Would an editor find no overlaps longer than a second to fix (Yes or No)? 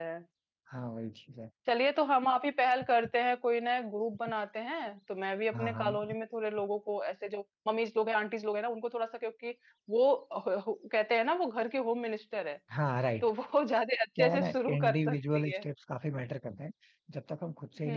No